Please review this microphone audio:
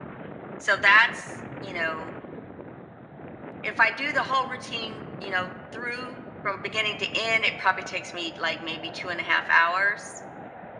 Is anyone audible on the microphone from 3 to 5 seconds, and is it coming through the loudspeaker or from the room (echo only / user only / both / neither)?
echo only